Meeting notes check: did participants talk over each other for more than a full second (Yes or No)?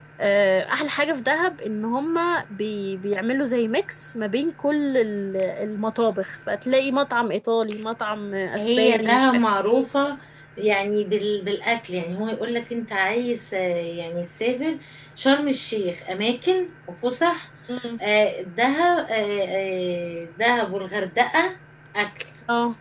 Yes